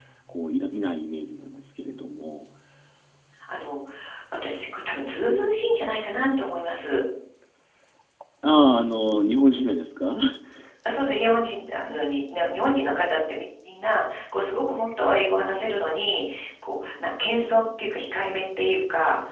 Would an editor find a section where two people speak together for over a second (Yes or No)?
No